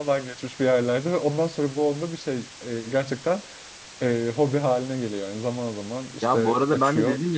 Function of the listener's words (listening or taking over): taking over